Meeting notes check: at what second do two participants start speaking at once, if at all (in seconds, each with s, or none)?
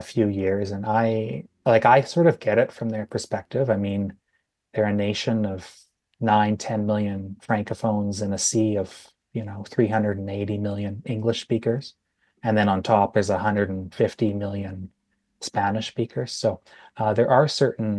none